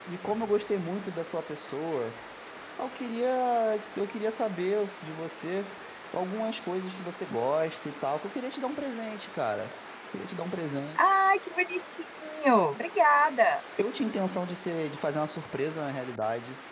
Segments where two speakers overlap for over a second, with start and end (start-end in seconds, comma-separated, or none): none